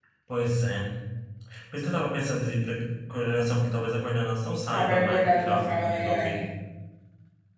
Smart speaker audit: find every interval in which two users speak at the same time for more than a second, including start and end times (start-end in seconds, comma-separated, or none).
4.7-6.3